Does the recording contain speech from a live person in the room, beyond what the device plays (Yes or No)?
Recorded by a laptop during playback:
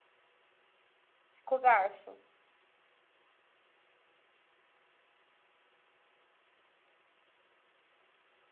Yes